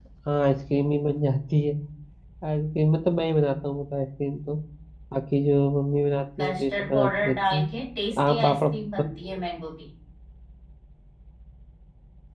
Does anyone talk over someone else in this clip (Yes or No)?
Yes